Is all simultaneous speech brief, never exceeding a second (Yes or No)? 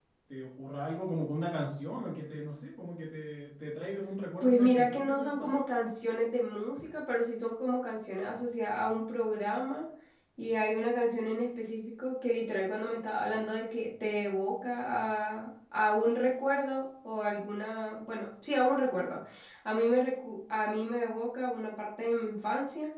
No